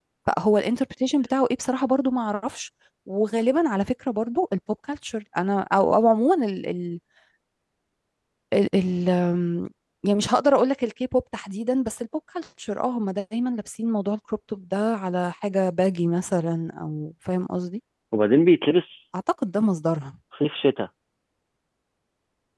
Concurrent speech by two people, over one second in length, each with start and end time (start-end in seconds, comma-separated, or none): none